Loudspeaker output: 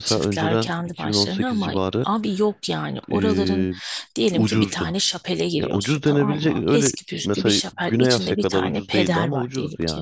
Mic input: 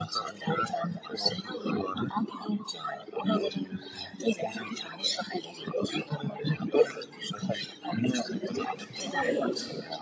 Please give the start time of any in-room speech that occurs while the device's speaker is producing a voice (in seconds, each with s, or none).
8.8 s